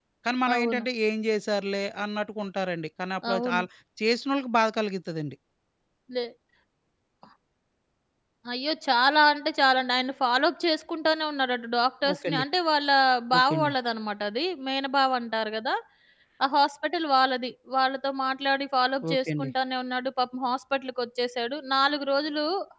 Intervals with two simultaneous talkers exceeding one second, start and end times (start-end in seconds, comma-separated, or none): none